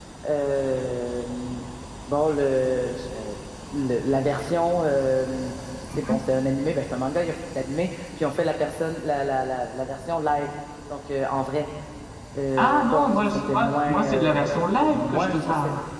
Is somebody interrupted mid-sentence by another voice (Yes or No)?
Yes